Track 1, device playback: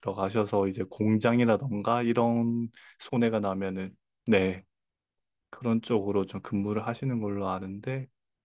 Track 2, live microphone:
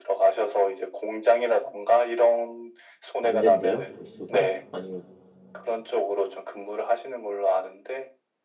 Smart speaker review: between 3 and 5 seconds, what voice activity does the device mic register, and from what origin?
both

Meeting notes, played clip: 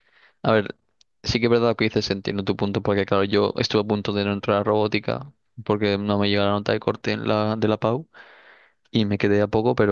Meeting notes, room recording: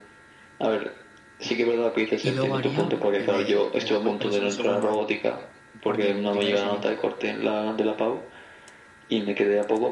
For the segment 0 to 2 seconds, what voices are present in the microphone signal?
echo only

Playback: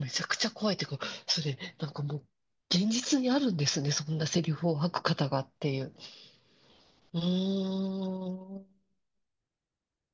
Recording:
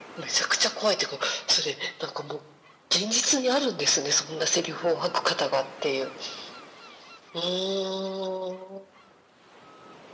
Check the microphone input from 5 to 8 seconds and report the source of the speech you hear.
echo only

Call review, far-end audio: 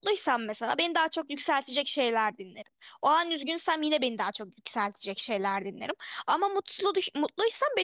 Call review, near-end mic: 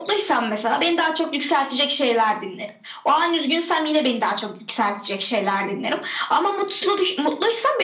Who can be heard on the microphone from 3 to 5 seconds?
echo only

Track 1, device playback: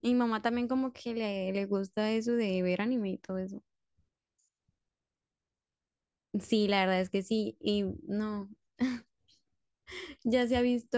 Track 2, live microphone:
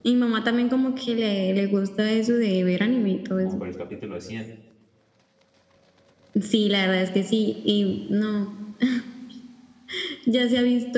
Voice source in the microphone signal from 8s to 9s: echo only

